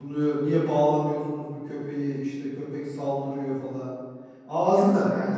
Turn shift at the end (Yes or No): No